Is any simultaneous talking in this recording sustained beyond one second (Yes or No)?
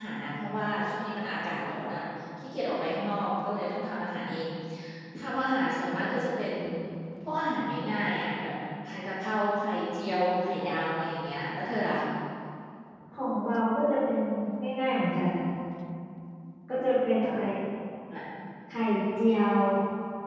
No